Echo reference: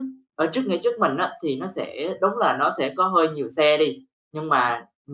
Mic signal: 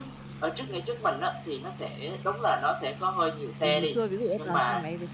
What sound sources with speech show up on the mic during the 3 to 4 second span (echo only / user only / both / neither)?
both